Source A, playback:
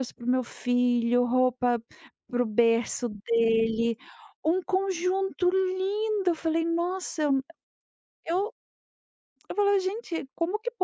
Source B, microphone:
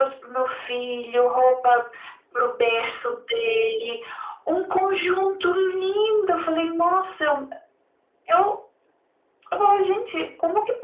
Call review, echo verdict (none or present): present